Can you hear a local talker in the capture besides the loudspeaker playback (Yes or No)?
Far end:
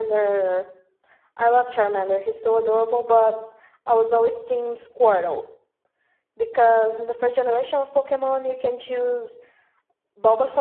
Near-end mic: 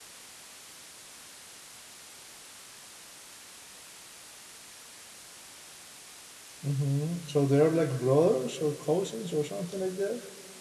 Yes